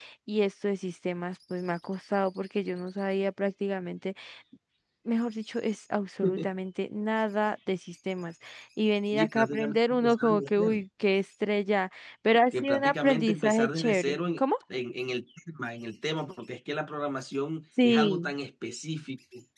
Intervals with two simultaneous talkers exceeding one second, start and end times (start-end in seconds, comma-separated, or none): 9.1-10.8, 12.5-14.4